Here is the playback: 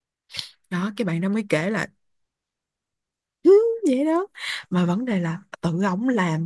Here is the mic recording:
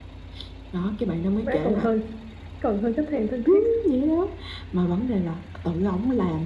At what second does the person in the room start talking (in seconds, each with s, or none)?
1.4 s